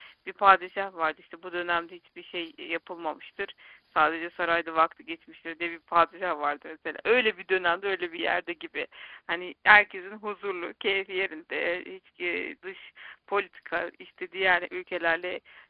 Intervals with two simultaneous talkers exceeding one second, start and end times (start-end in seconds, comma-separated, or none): none